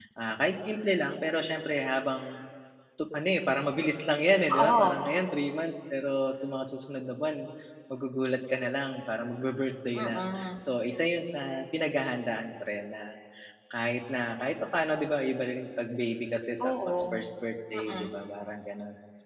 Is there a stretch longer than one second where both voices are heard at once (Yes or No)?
No